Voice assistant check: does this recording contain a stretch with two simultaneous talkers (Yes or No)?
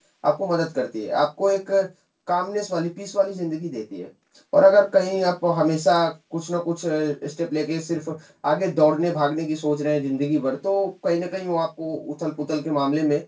No